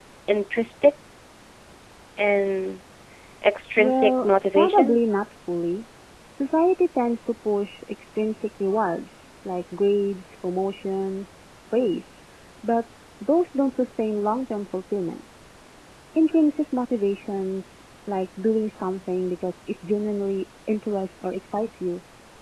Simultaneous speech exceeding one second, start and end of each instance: 3.8-5.0

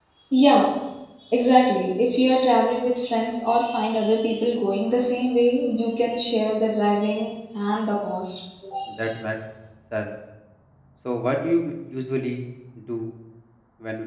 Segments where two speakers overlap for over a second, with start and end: none

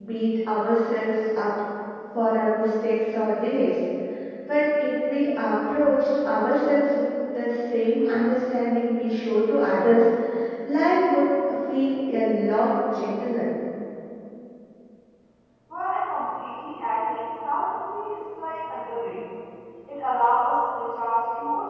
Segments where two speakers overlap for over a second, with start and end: none

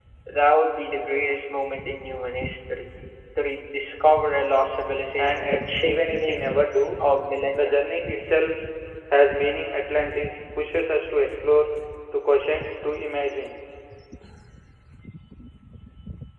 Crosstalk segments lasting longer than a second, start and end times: 5.2-6.5

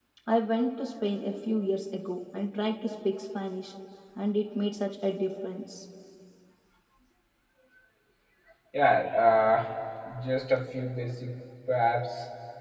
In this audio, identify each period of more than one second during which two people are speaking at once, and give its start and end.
none

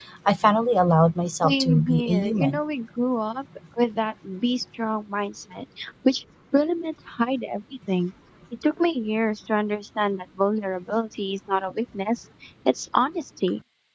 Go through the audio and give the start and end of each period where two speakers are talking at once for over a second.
1.3-2.6

